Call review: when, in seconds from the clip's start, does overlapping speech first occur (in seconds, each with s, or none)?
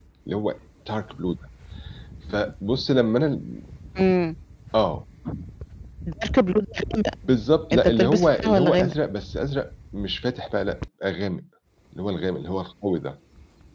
7.7 s